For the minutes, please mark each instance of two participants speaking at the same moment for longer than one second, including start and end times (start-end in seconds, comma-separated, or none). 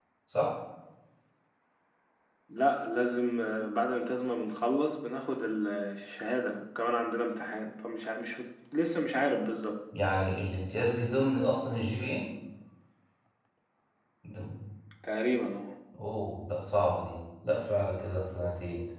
none